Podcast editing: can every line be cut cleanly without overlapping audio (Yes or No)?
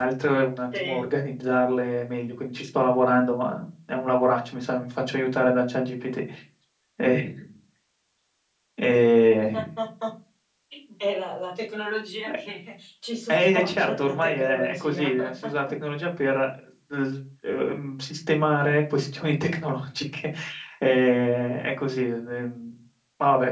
No